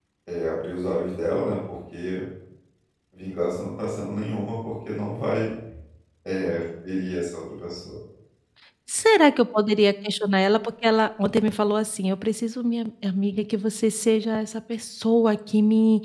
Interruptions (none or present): none